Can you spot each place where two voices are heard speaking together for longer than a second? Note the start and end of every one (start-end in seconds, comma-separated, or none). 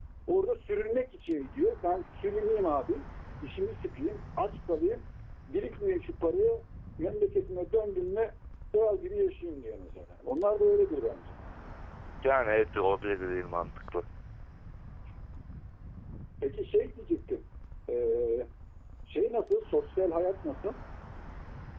none